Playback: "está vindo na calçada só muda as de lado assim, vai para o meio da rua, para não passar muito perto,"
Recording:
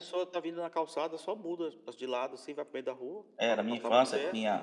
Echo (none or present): present